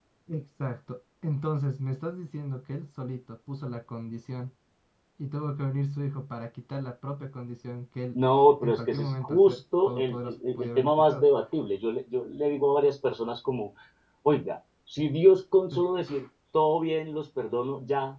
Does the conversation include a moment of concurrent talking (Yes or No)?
Yes